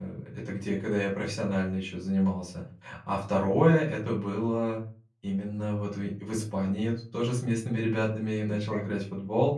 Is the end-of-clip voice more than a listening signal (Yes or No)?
No